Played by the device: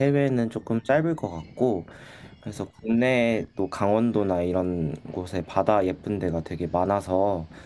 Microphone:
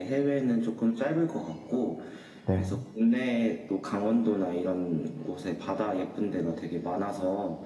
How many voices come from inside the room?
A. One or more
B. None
A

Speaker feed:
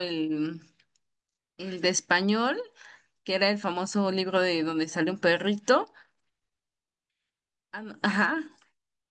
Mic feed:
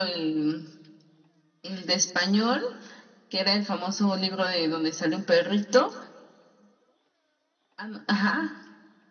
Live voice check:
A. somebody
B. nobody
B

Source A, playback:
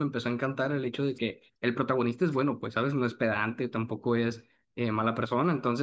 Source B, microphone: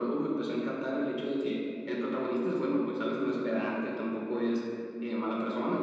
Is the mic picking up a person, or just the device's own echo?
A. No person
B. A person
A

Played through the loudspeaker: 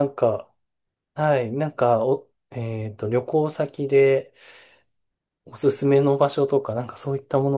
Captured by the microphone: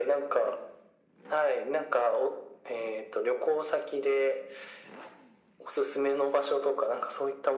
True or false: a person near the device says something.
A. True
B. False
B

